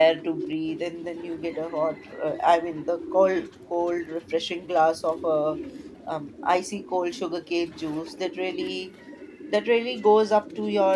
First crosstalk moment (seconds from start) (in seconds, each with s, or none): none